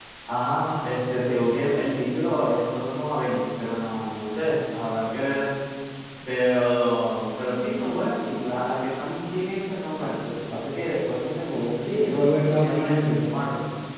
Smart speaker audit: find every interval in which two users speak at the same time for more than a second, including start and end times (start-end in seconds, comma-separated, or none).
11.8-13.2